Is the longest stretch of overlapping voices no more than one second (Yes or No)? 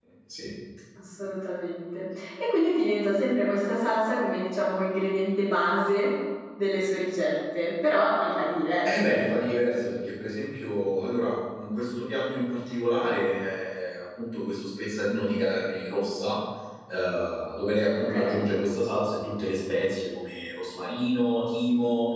Yes